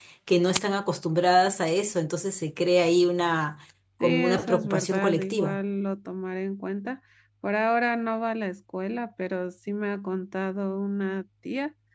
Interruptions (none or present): present